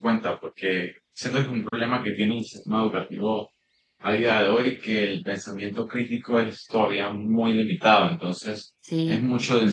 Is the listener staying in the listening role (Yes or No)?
Yes